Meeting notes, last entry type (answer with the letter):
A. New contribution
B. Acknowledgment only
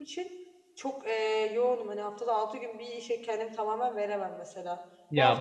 B